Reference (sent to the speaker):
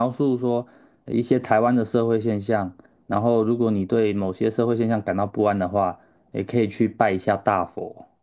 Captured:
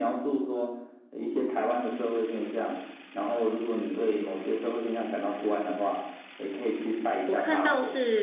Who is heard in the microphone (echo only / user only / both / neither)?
both